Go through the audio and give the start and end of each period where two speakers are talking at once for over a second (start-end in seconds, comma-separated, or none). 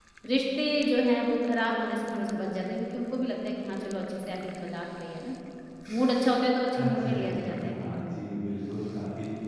6.8-8.0